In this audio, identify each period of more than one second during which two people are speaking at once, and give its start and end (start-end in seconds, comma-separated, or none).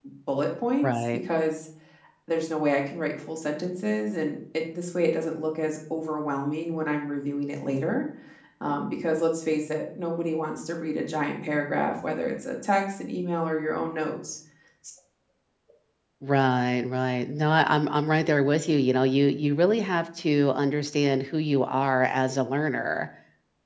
none